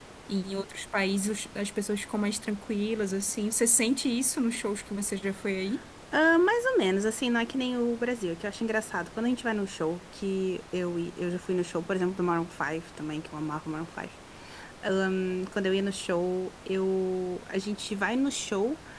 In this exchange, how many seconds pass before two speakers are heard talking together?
none

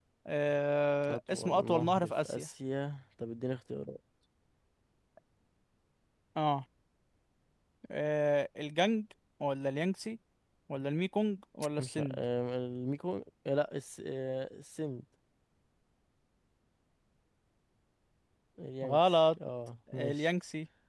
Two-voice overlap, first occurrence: 1.1 s

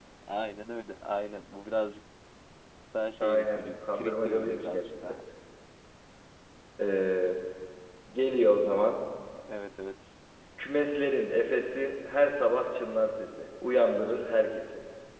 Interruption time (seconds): 3.2 s

